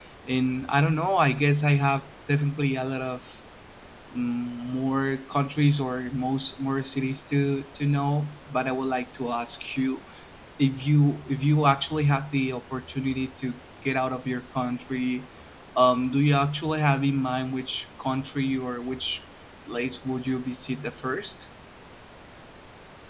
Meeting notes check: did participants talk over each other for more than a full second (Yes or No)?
No